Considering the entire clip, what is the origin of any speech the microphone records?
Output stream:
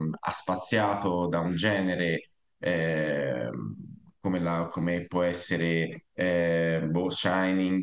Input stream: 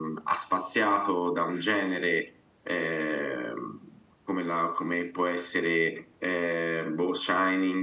echo only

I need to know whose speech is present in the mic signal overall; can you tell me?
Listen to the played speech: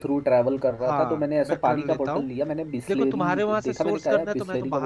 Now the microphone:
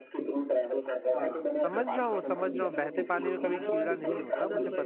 both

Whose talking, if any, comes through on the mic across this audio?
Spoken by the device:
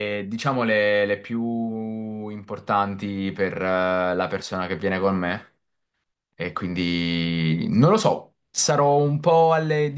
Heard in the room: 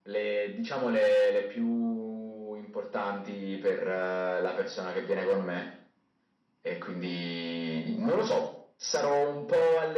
echo only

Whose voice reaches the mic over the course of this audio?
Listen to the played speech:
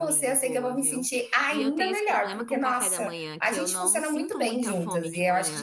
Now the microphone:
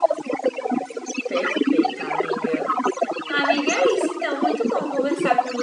both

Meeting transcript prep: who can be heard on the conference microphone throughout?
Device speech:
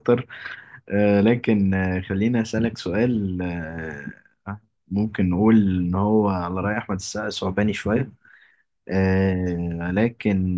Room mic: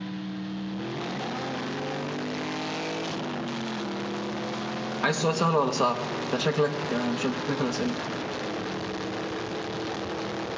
user only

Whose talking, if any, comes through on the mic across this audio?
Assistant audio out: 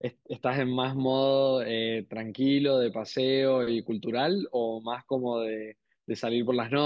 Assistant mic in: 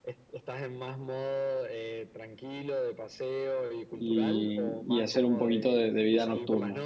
both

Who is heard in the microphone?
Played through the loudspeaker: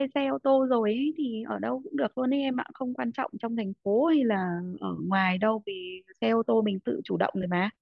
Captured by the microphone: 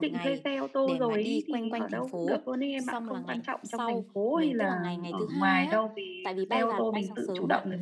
both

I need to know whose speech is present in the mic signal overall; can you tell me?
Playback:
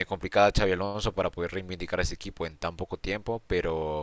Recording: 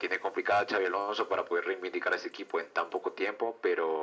echo only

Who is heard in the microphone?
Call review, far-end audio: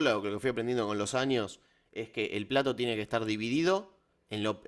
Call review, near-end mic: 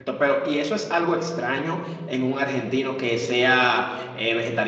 user only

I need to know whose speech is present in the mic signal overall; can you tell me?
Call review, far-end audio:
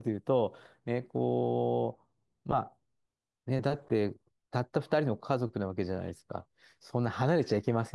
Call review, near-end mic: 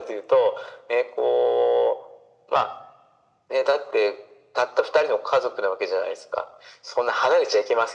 echo only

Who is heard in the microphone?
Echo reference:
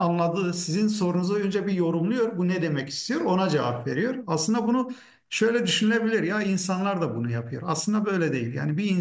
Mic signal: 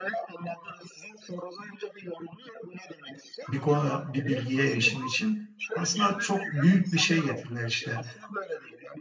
both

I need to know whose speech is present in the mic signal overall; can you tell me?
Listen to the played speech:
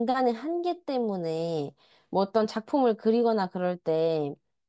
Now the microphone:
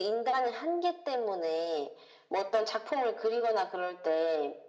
echo only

